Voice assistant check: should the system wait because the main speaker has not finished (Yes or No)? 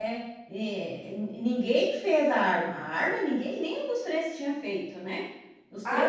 No